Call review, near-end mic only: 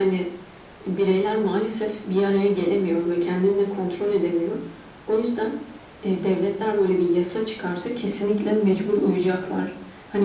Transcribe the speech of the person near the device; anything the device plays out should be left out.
none

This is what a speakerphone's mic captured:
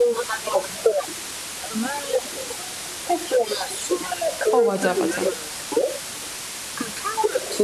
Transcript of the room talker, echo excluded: 어, 맞아, 맞아.

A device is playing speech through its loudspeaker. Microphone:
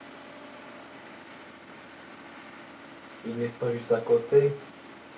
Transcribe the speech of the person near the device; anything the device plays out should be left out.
il n'est pas juste à côté.

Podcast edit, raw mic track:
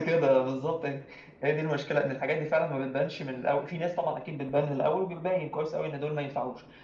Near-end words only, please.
none

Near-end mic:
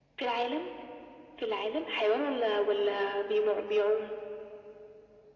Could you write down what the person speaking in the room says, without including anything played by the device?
none

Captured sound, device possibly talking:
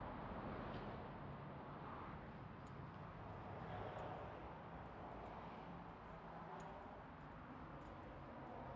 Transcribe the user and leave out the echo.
none

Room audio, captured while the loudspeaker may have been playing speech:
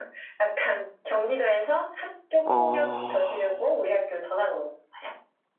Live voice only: 어,

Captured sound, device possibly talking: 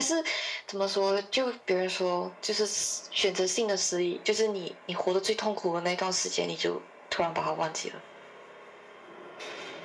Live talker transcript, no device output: none

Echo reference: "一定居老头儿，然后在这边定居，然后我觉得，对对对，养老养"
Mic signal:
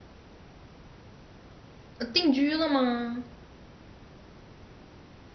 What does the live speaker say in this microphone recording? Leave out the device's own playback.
呃定居了吗？

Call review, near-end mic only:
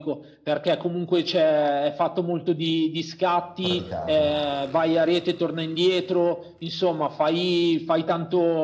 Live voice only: praticato.

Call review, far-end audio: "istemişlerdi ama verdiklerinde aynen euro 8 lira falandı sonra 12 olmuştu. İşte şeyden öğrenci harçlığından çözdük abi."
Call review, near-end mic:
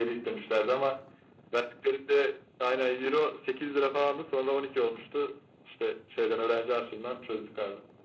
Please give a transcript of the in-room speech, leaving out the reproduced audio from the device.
none

